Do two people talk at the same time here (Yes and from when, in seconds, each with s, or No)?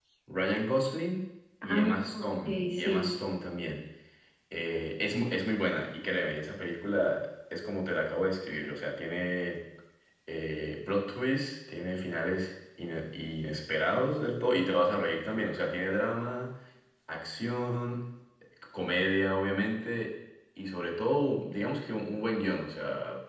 Yes, from 1.6 s